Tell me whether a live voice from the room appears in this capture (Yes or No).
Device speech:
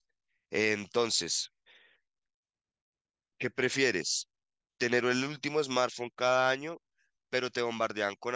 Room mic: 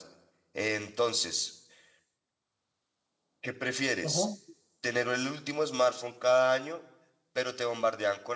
Yes